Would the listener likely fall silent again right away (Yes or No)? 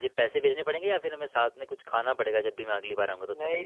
No